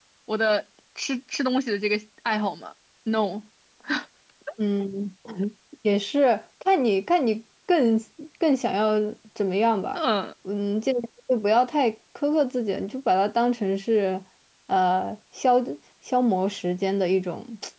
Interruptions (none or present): none